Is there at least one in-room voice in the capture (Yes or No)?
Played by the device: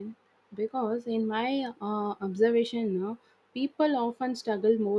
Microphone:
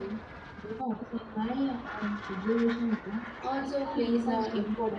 Yes